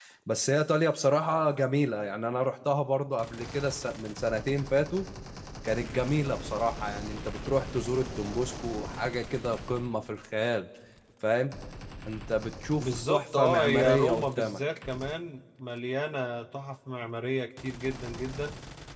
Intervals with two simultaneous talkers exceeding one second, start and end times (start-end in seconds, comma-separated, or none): 12.8-14.6